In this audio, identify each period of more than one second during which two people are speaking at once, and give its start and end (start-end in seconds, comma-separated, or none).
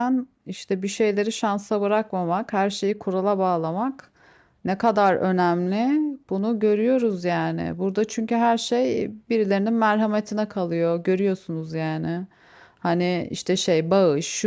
none